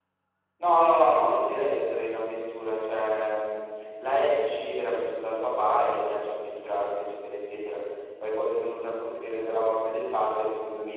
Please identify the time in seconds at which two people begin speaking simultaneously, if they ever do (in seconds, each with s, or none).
none